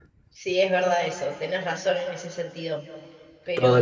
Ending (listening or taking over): taking over